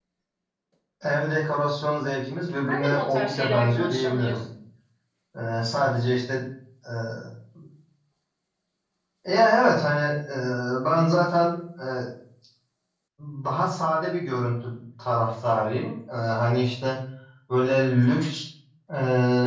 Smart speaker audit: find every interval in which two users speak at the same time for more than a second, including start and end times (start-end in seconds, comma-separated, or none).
2.7-4.4